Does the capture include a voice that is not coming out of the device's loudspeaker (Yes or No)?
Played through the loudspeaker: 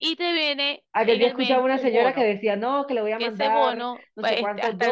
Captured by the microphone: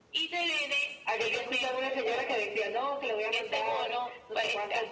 No